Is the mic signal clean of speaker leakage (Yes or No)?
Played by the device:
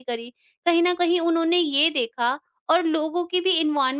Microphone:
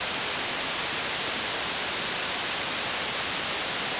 Yes